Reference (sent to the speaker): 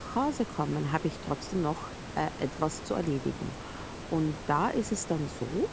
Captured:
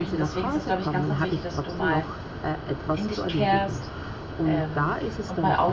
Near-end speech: present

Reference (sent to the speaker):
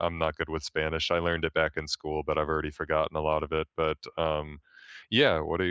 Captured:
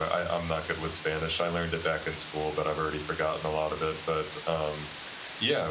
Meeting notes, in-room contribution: none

